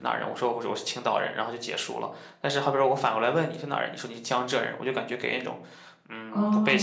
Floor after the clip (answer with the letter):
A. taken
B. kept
A